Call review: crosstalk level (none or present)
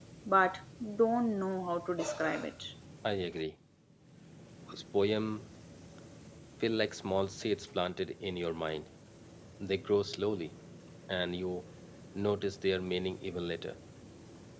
none